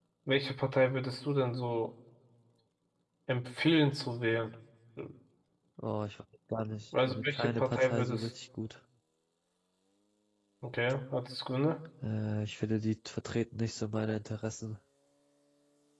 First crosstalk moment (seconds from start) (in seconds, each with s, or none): 6.9 s